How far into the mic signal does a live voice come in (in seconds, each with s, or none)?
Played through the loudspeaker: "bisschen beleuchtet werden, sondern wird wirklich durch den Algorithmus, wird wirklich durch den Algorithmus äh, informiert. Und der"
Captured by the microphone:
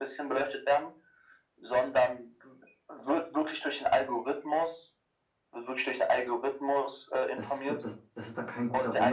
7.3 s